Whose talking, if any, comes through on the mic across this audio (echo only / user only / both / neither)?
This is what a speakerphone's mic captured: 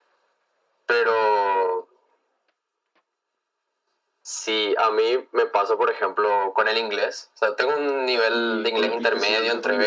both